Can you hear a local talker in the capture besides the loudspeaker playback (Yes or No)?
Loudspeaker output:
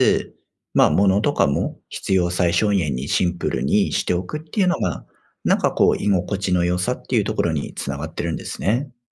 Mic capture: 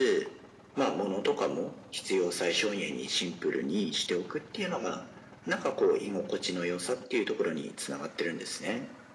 No